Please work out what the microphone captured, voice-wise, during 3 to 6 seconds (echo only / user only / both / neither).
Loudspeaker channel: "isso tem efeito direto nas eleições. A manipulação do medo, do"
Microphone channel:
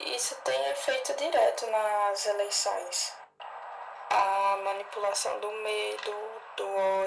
echo only